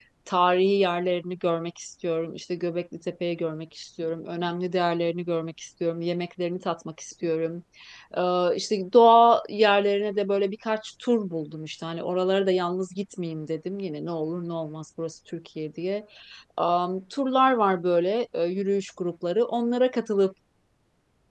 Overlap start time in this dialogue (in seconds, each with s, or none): none